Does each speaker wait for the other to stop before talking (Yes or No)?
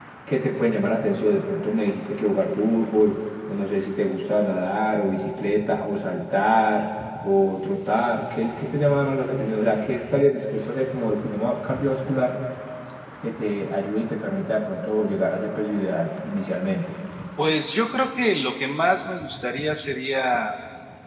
Yes